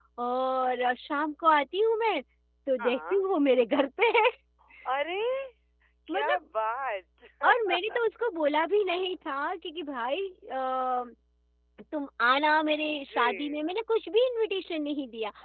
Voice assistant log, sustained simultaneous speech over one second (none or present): none